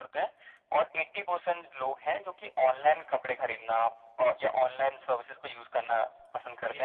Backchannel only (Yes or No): No